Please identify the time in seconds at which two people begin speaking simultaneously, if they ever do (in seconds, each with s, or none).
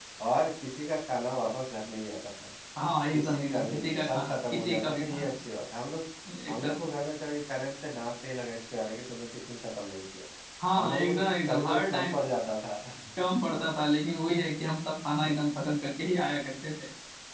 3.1 s